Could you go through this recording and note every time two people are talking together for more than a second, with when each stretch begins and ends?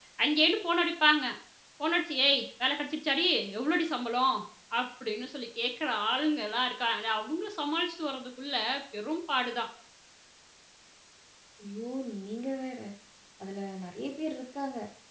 none

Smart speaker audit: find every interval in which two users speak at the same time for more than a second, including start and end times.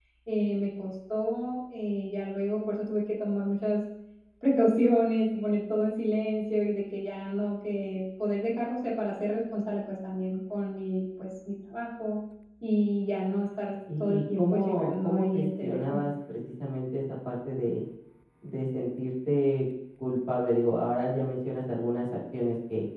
14.0-16.0

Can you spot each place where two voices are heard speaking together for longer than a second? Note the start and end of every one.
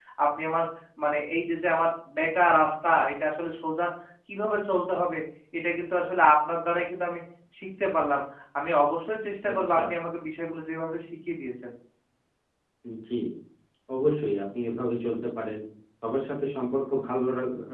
none

